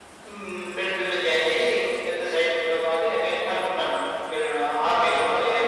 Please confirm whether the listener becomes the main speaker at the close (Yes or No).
Yes